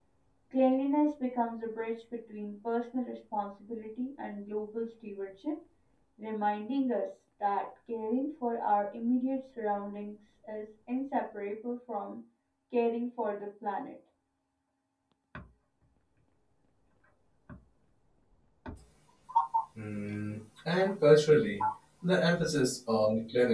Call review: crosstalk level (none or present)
none